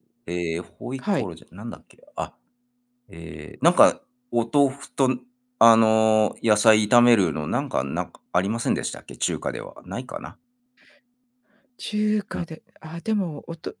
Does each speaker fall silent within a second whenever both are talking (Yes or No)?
Yes